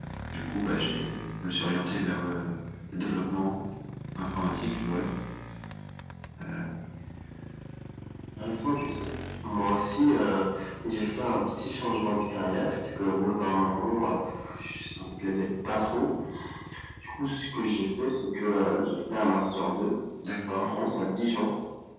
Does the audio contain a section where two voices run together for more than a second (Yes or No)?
No